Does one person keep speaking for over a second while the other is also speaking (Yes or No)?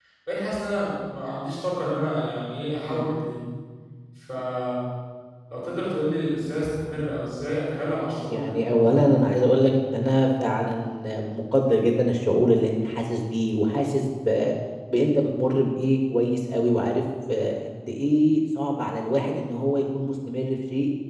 No